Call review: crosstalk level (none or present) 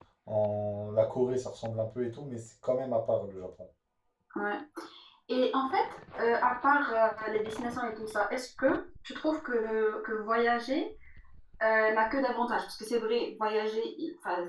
none